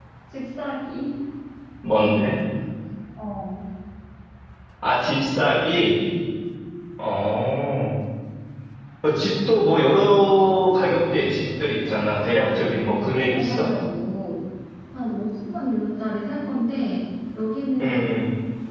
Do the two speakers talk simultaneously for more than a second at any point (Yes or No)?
Yes